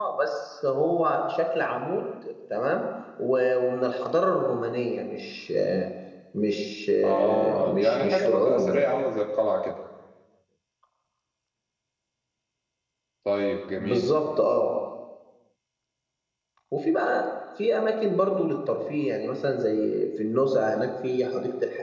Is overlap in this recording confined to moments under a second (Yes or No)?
No